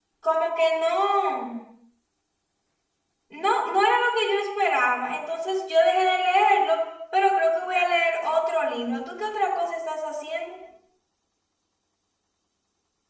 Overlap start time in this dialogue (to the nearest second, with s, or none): none